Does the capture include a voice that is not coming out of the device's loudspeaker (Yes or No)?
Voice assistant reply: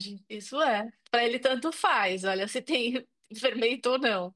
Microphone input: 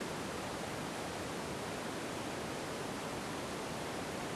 No